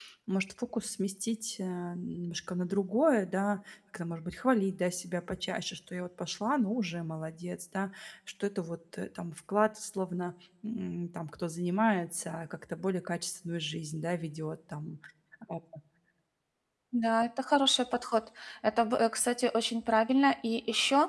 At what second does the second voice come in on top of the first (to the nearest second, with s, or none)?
none